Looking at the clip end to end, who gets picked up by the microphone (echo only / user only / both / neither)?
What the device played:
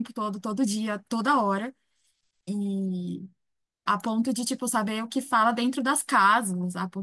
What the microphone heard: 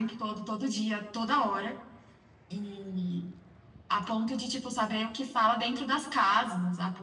echo only